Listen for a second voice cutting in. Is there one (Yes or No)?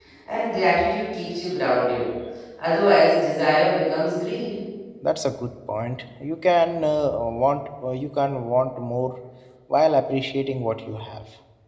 No